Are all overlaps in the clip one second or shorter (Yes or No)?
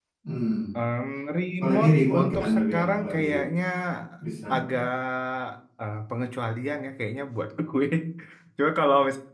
No